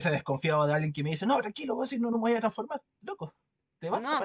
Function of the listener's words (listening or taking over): taking over